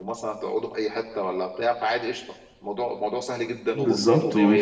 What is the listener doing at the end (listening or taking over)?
taking over